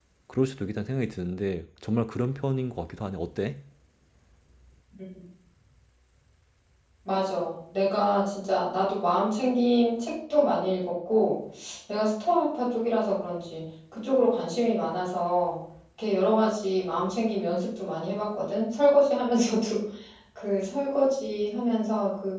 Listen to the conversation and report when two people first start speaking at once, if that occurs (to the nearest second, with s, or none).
none